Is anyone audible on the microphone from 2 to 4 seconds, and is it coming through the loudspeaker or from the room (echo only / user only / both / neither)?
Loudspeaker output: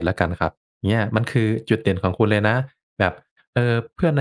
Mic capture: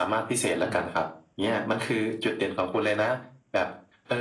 echo only